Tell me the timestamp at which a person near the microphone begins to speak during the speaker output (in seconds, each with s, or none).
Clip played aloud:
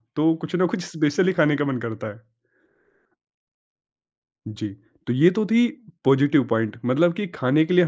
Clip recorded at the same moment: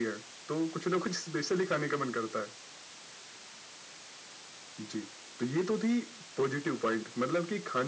none